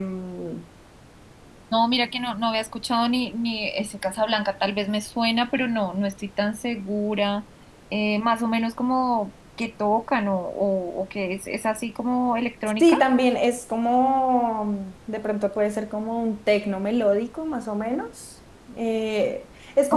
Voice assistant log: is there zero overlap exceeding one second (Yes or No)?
Yes